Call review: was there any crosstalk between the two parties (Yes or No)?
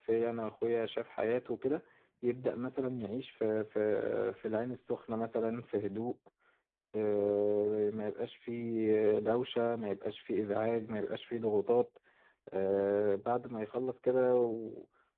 No